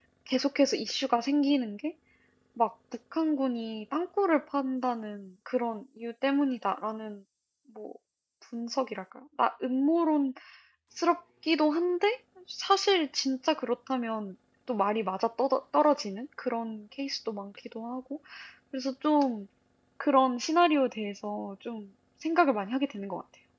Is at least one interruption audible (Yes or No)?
No